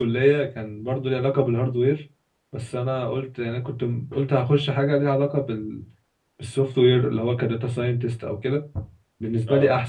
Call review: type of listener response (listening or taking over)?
listening